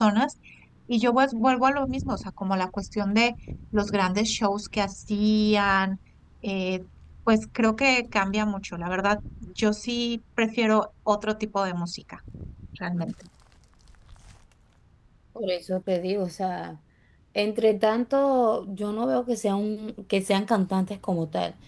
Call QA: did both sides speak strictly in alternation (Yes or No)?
Yes